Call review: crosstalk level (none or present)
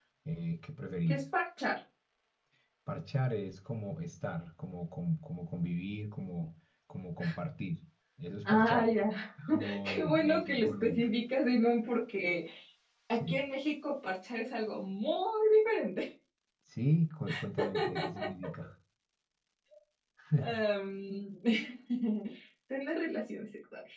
present